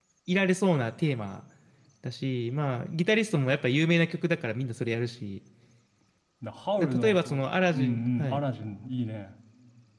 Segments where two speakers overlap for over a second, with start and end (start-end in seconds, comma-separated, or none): 6.8-8.4